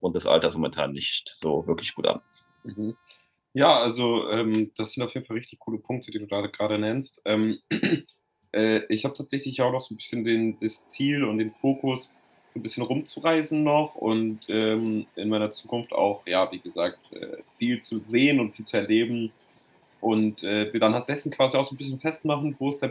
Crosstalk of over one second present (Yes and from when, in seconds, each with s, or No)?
No